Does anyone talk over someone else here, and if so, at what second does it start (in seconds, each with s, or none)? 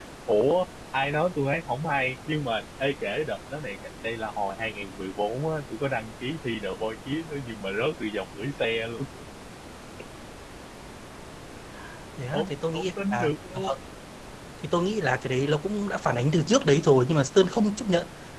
12.3 s